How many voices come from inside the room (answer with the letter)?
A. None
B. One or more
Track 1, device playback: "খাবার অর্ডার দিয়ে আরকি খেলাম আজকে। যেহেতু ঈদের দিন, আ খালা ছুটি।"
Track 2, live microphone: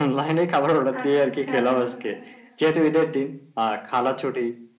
B